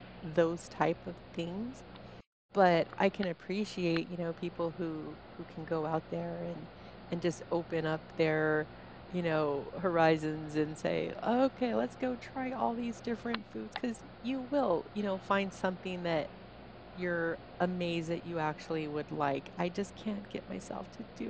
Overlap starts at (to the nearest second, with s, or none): none